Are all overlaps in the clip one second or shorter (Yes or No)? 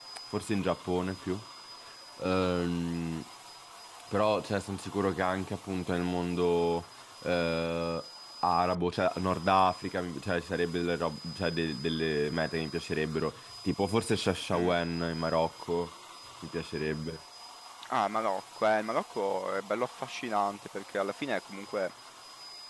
Yes